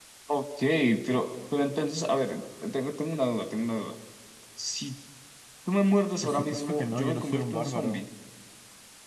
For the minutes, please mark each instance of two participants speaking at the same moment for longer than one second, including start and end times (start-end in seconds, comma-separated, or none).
6.2-8.0